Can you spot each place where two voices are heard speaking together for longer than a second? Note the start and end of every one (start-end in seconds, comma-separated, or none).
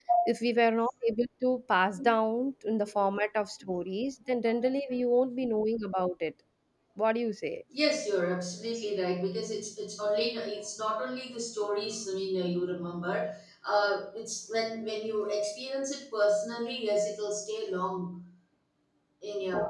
none